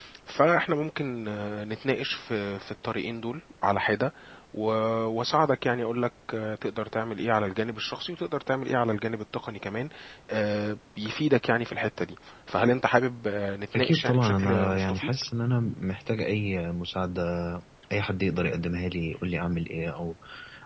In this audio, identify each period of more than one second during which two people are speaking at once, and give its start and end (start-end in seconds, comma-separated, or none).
13.8-15.1